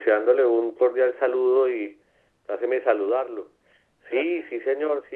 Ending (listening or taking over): listening